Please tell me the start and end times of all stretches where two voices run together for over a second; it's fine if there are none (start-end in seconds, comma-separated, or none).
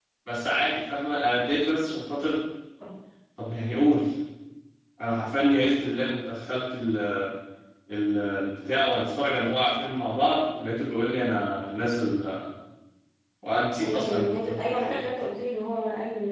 13.8-15.1